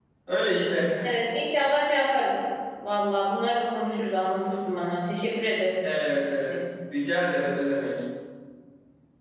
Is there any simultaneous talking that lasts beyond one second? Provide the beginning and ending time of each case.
none

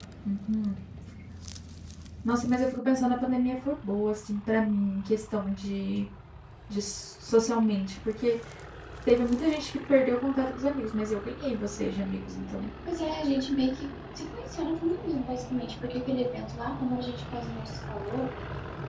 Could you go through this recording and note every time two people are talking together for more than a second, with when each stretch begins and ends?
none

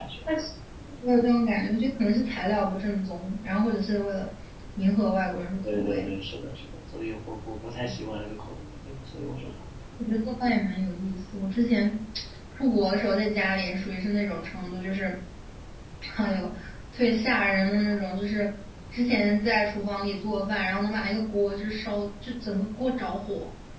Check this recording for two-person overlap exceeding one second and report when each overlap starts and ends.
none

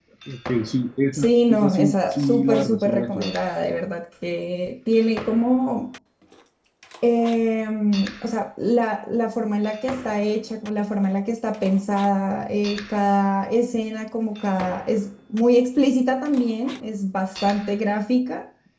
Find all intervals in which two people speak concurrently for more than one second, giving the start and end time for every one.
1.1-3.3

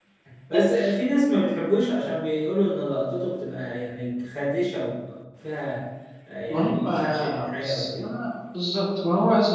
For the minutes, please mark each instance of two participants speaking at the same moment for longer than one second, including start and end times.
6.5-8.0

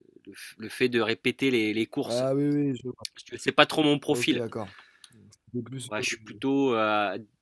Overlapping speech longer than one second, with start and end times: none

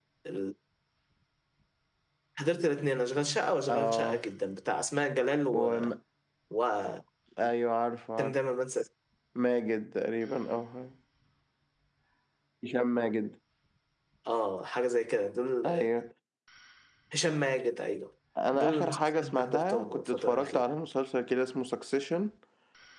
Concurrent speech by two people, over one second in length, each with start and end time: 18.5-20.7

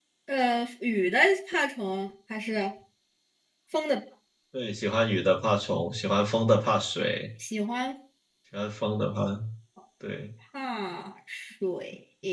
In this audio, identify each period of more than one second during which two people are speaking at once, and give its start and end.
none

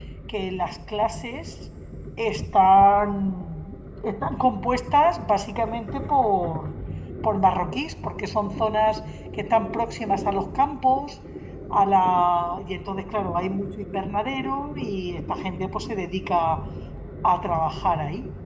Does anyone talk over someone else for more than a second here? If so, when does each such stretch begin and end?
none

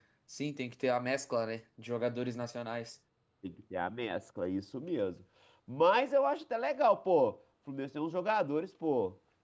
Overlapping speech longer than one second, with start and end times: none

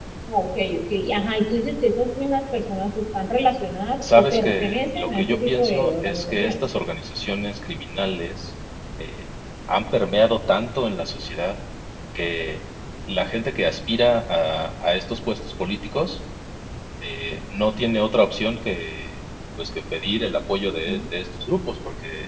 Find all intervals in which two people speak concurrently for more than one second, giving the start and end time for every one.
4.0-6.5

